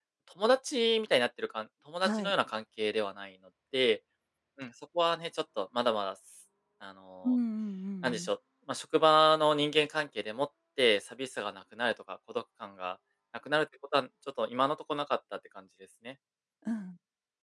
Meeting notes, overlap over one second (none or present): none